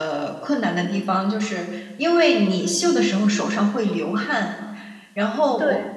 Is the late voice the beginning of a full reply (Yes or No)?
No